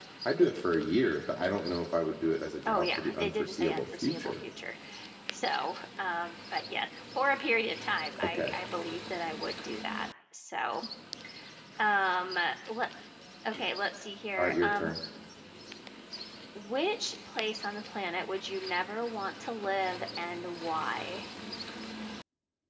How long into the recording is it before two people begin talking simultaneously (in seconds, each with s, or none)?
2.7 s